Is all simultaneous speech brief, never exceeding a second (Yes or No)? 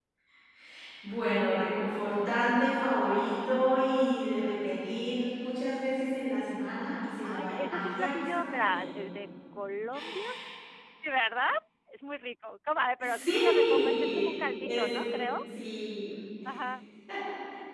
No